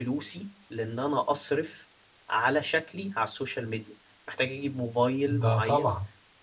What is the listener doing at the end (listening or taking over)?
listening